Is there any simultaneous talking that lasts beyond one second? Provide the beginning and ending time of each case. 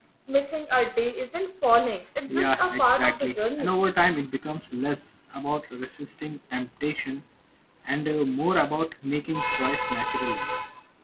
2.3-3.7

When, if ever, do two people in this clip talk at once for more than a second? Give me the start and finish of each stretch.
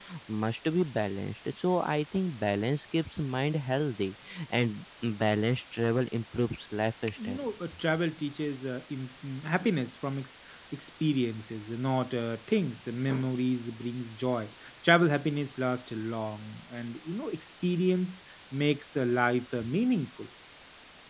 none

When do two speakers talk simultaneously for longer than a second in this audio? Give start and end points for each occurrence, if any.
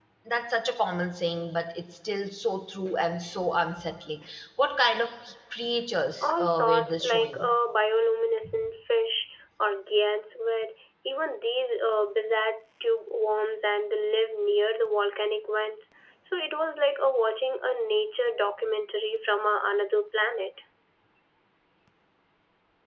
6.2-7.5

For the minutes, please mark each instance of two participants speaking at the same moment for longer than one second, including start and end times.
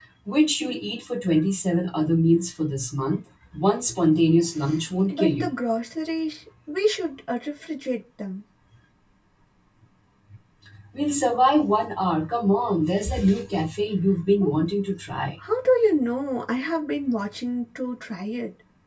none

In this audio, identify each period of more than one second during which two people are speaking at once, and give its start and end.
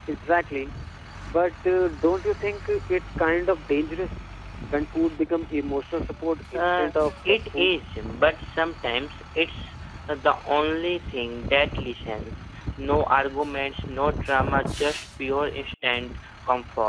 6.5-7.8

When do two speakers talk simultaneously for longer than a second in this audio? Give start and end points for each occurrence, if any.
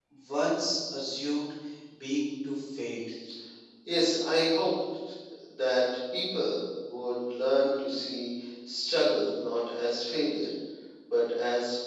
none

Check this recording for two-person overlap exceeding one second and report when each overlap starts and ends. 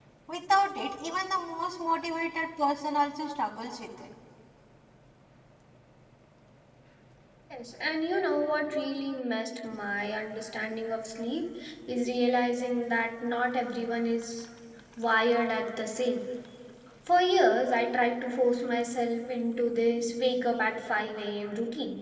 none

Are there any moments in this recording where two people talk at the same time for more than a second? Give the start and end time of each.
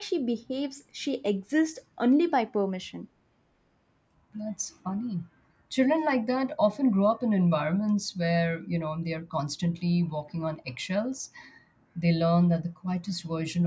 none

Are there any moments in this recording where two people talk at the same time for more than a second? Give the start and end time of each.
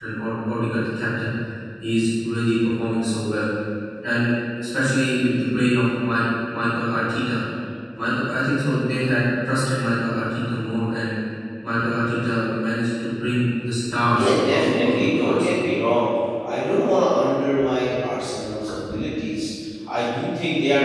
14.2-15.6

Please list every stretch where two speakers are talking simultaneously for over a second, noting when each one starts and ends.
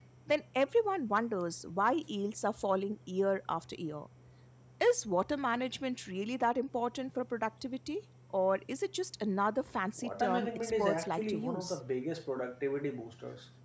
10.0-11.8

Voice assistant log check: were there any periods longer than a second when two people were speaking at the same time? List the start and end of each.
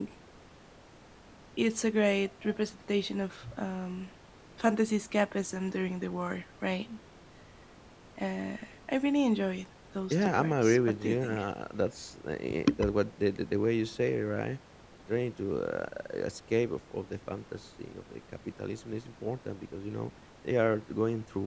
10.1-11.4

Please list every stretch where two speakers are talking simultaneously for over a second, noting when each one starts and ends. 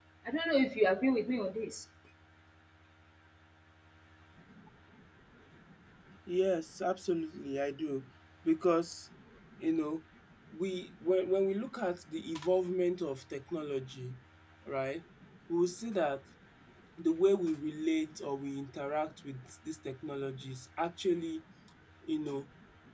none

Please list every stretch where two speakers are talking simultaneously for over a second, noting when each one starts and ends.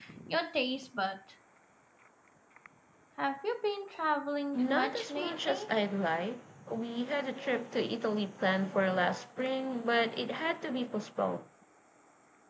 4.5-5.7

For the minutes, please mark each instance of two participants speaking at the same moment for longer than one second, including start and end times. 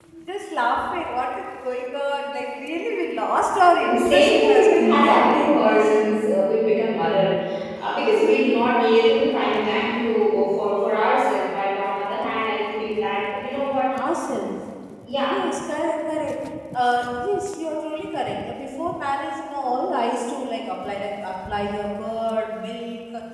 3.8-5.5

